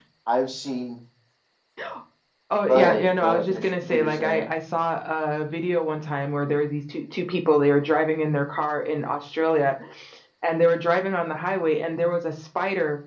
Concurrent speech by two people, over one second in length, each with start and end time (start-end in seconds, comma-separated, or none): 2.7-4.5